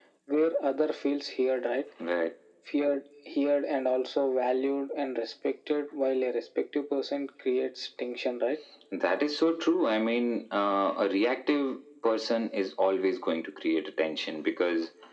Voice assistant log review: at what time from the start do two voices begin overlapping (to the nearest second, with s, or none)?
none